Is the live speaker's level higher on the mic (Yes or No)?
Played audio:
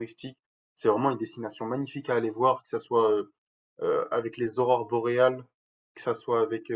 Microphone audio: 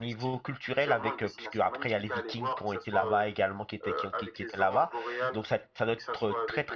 Yes